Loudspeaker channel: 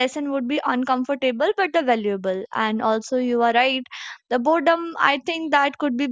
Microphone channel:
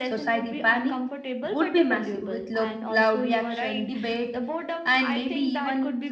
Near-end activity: present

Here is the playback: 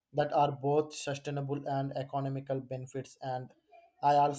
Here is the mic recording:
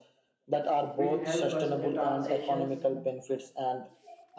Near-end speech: present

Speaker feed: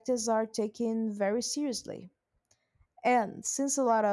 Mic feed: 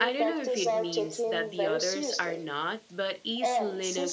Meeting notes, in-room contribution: present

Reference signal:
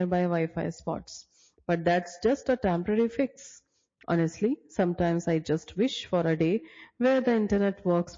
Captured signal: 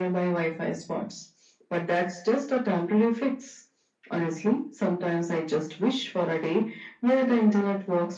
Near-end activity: none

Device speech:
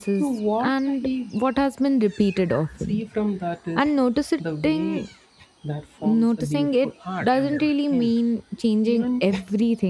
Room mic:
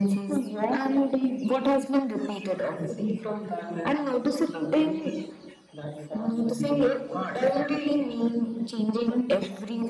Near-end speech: none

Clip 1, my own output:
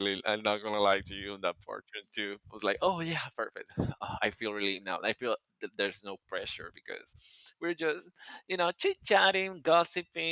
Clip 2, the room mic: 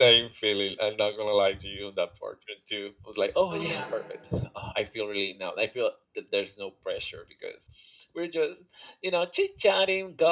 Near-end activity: present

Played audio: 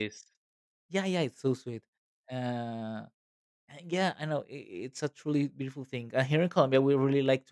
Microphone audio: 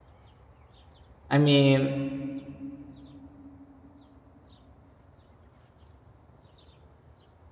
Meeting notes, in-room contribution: present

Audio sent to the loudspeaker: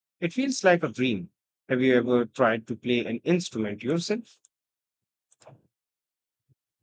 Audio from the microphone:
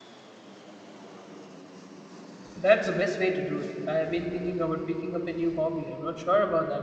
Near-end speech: present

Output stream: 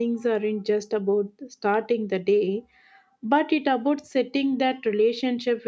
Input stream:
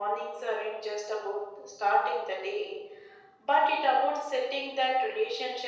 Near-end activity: none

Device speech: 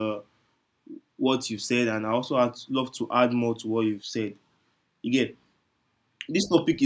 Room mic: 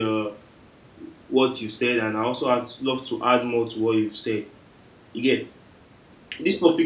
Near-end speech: none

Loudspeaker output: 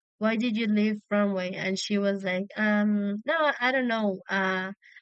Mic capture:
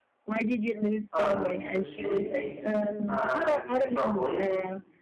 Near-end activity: present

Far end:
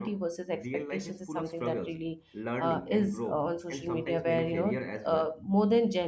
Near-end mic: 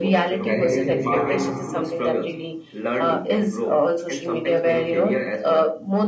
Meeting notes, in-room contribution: present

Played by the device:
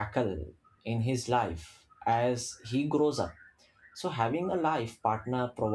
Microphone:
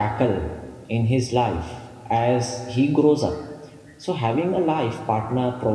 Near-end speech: none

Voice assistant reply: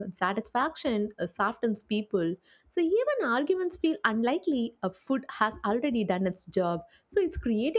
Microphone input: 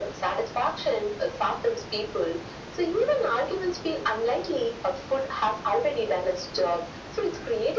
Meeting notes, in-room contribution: none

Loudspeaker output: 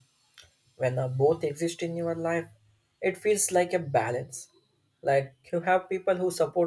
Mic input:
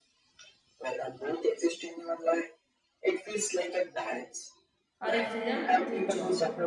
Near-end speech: present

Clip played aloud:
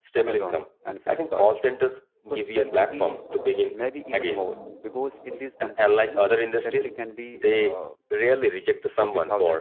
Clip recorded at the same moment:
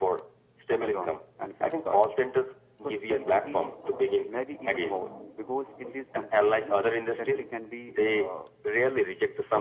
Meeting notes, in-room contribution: none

